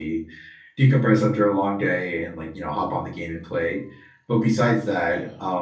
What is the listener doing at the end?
listening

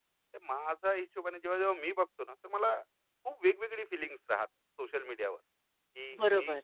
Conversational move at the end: listening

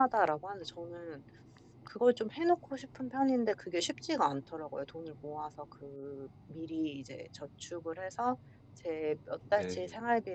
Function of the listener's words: listening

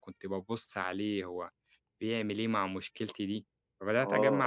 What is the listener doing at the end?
taking over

